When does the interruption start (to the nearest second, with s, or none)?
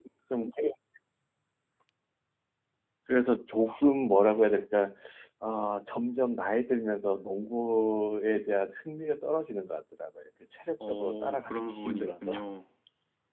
11 s